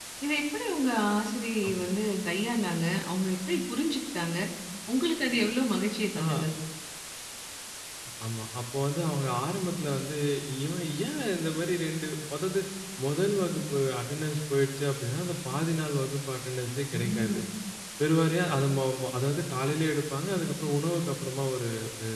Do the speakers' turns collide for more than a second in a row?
No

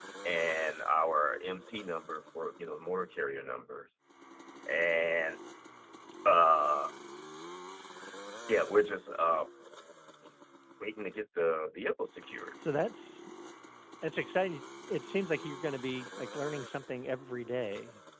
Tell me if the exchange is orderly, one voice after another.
Yes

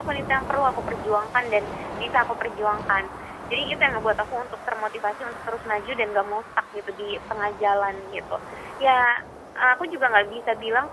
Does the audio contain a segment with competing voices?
No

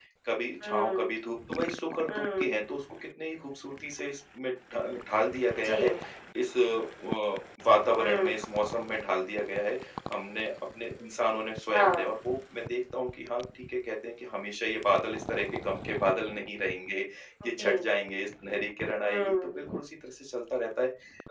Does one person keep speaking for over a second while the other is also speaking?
No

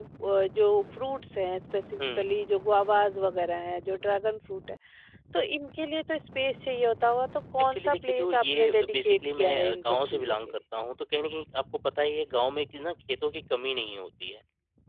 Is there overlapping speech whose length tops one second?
Yes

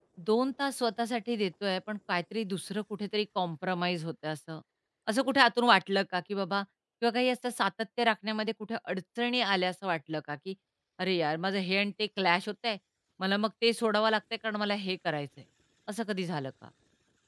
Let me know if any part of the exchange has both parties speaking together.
No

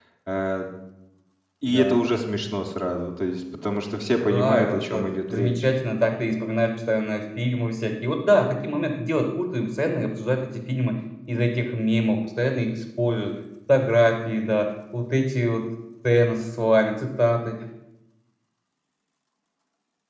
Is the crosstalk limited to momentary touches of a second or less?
No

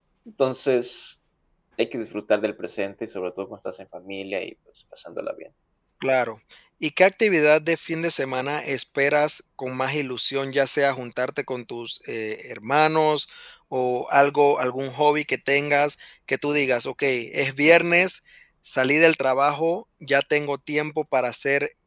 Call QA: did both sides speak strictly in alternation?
Yes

